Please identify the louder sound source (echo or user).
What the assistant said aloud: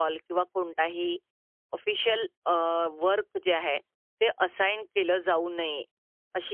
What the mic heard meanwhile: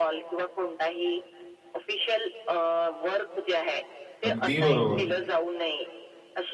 user